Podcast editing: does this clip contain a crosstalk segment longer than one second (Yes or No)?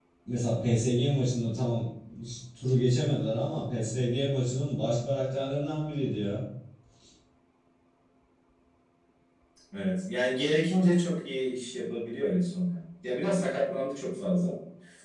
No